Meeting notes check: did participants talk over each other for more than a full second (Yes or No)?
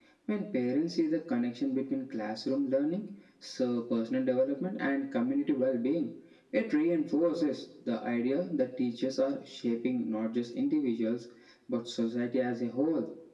No